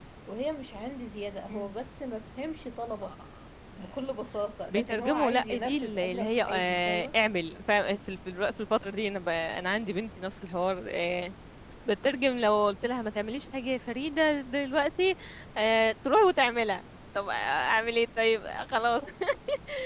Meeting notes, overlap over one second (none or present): present